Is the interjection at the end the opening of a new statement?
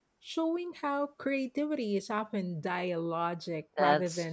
Yes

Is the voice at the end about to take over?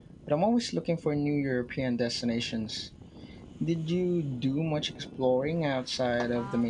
Yes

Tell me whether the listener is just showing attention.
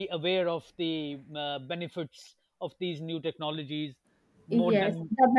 No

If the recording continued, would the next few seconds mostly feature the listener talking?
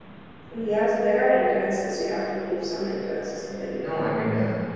Yes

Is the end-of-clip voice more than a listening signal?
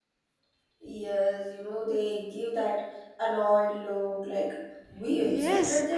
Yes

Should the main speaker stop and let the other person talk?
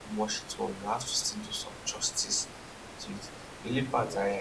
No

